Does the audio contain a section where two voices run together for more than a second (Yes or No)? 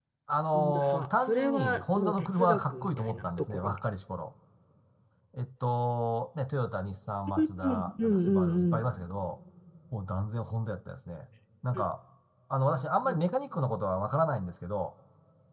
Yes